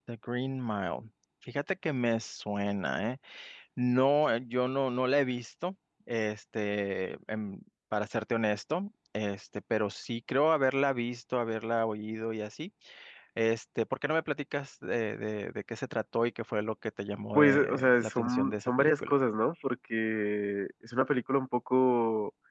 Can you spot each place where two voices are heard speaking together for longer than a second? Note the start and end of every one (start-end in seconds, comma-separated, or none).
17.3-19.1